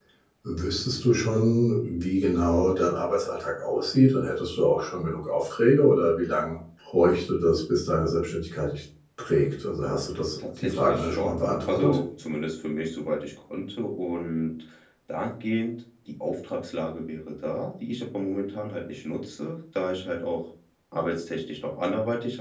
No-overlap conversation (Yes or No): No